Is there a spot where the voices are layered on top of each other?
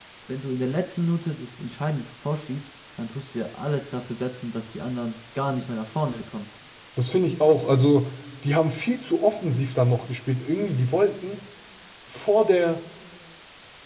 No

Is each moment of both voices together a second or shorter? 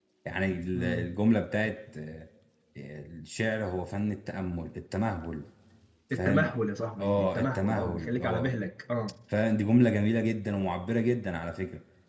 No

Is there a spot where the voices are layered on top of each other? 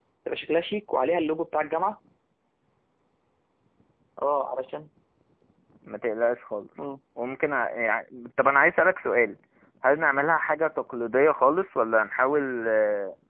No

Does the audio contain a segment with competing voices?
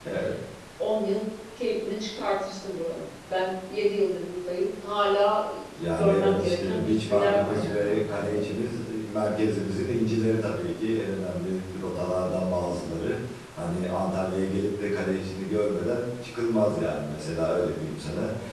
Yes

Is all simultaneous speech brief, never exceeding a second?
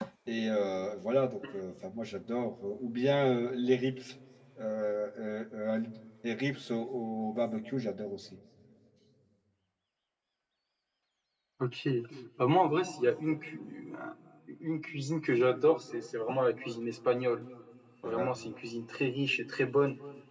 Yes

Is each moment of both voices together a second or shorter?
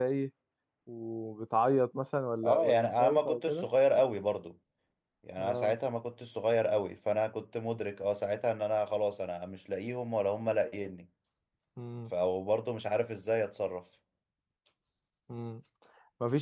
No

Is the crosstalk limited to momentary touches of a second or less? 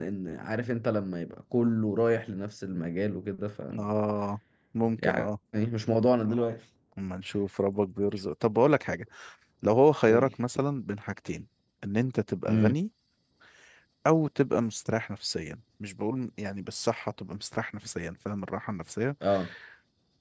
Yes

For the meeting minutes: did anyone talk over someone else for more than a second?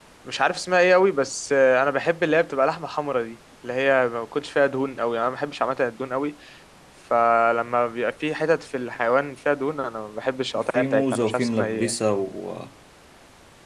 Yes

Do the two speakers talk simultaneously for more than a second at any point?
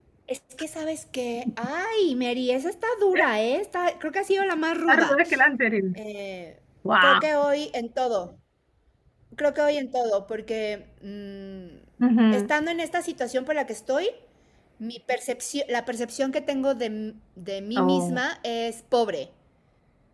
No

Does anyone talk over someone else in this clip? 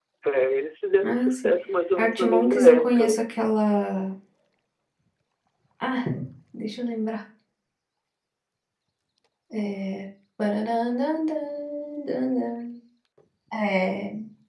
Yes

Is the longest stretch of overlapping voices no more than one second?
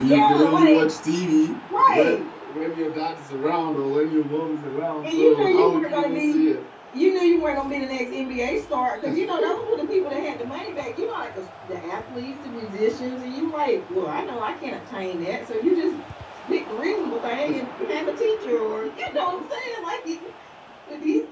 No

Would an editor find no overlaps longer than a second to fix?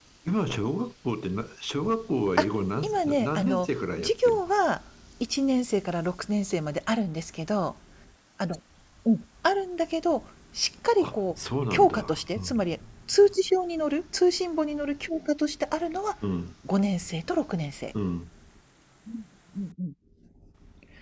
No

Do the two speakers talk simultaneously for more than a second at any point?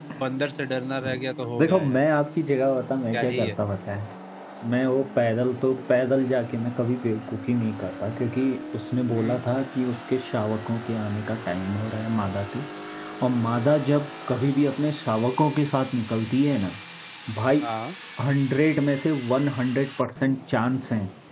No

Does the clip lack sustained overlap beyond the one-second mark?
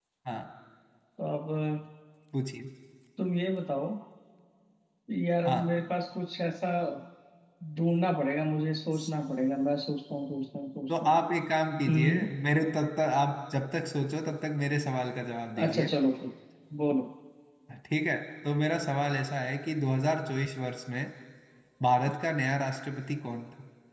Yes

